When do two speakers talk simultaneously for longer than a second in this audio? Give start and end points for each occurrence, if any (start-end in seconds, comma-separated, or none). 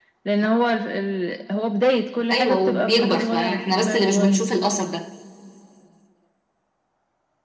2.3-4.4